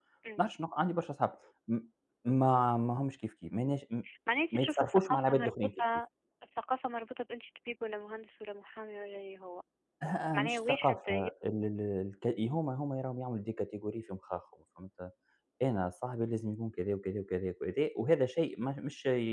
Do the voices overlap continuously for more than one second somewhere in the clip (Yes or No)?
Yes